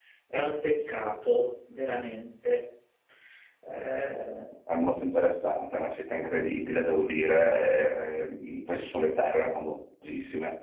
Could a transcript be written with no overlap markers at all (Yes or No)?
Yes